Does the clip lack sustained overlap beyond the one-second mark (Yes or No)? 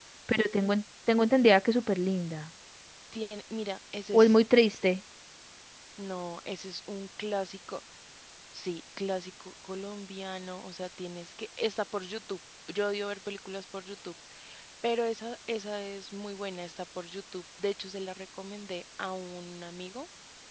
Yes